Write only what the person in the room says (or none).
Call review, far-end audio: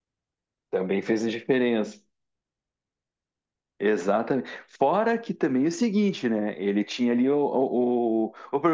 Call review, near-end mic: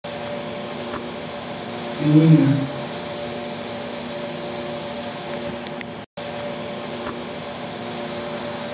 Sim,